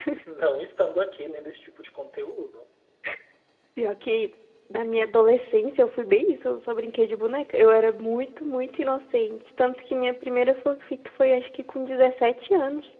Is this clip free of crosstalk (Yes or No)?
Yes